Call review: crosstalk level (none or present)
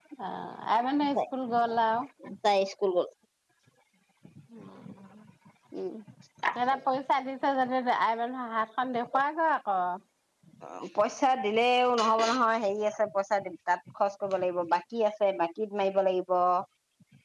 none